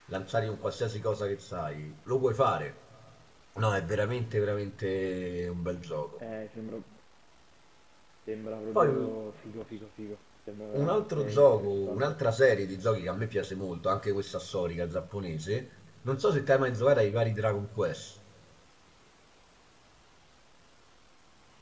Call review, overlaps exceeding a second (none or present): present